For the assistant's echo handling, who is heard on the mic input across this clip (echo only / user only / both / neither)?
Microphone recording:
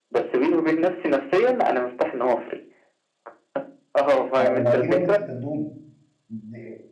both